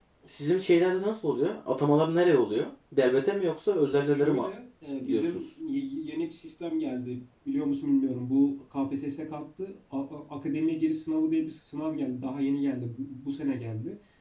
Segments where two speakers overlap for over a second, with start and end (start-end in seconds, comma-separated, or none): none